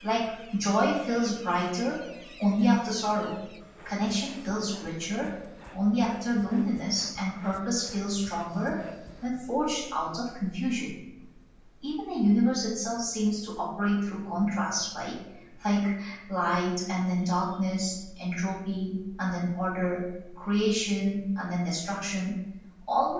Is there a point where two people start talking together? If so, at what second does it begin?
none

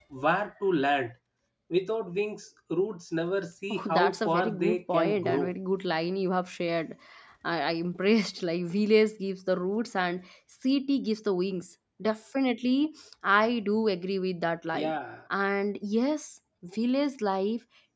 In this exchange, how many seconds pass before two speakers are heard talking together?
3.7 s

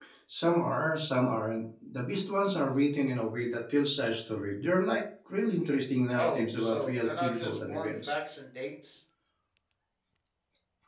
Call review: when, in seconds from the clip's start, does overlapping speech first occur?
6.2 s

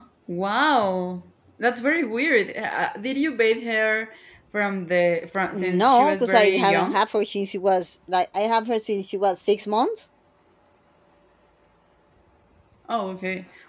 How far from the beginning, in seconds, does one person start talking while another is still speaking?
5.5 s

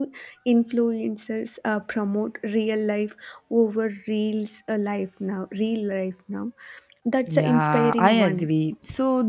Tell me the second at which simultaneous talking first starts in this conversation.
7.3 s

